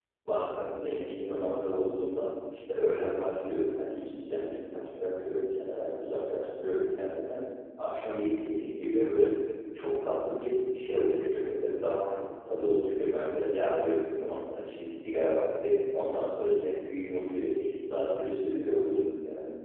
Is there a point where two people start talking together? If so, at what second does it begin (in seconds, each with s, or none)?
none